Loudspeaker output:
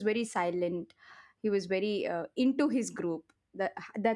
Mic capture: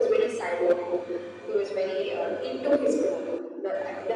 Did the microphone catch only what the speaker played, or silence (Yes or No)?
Yes